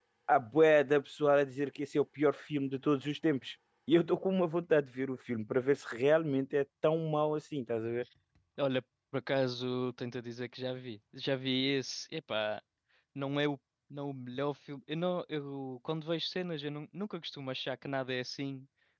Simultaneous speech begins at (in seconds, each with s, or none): none